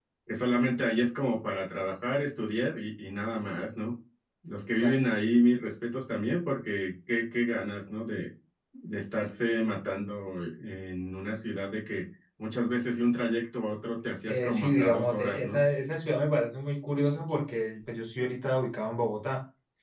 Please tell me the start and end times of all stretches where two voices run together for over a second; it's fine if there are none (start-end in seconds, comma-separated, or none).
14.3-15.6